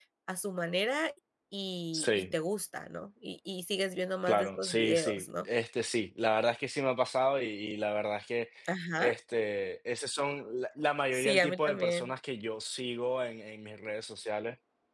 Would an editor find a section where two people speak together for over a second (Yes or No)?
Yes